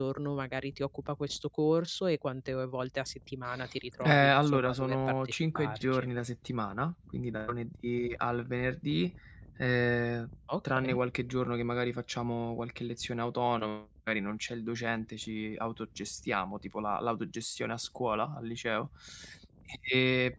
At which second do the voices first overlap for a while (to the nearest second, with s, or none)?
4 s